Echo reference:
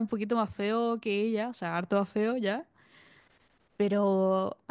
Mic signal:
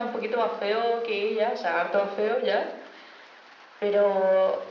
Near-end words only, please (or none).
none